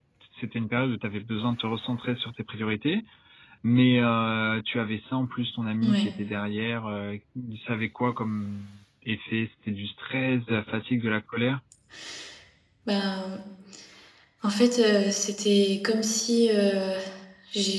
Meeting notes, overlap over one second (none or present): none